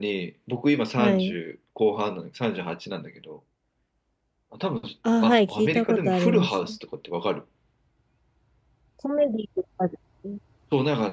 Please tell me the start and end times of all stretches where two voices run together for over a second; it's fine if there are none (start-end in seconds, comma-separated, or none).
5.2-6.8